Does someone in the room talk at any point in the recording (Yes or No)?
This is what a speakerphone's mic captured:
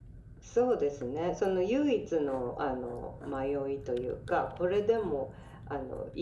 No